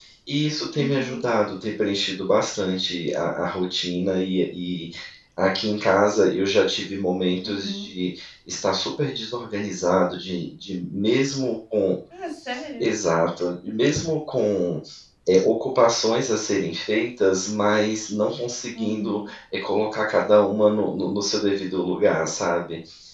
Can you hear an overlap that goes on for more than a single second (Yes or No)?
No